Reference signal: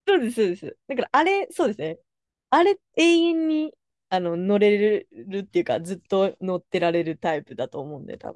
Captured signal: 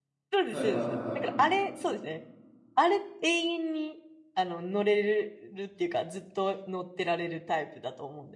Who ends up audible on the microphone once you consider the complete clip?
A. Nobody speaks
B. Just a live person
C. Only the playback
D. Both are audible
D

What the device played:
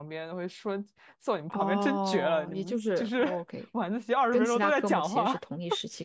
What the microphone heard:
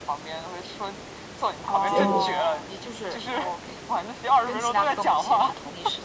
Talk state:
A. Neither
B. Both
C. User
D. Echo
B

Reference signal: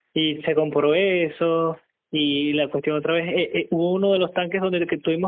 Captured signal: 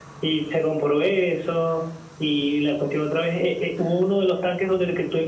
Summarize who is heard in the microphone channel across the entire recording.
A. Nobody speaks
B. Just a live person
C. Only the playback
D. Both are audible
C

